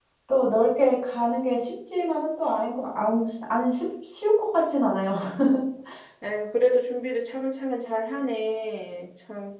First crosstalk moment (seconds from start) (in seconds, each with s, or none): none